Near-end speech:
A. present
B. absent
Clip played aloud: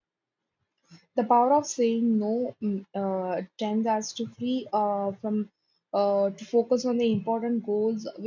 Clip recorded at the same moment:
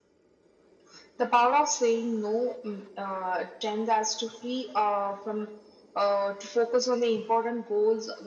B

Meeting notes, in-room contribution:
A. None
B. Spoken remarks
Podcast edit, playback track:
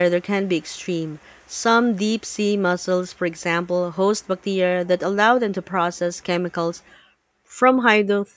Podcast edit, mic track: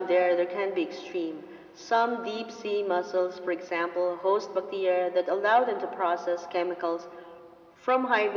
A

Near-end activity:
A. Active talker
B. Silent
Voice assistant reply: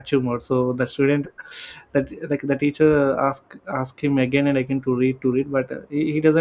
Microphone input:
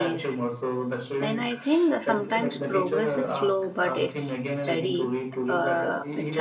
A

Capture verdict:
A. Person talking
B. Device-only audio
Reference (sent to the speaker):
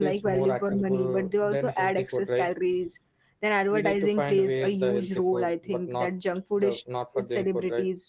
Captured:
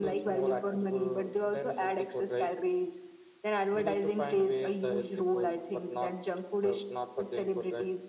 B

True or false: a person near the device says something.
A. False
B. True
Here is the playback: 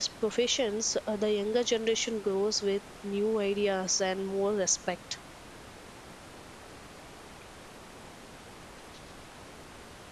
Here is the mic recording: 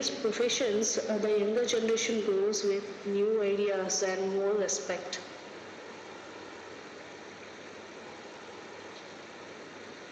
A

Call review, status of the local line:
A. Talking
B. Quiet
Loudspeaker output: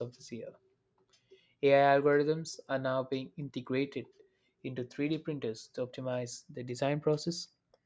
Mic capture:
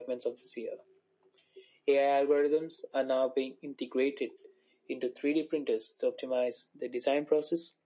B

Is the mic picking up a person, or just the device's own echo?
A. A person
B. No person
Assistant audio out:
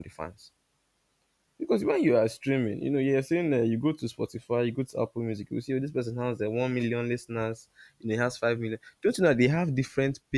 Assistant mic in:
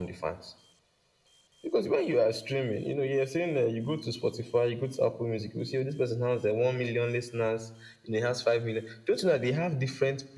B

